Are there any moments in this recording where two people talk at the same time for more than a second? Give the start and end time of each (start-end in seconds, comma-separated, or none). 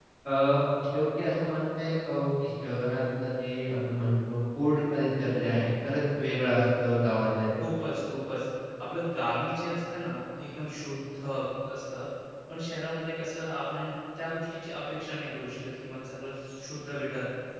none